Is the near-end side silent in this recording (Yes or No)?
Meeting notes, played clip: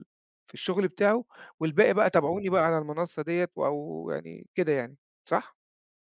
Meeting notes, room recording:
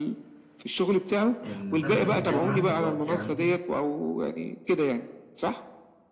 No